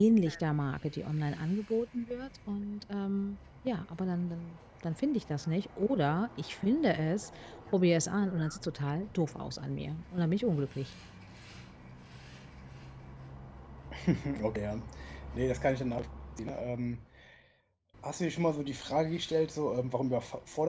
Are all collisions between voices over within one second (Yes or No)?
Yes